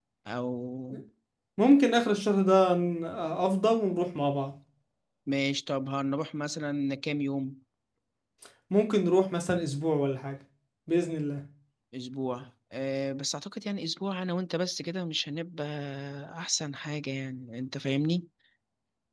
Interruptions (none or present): none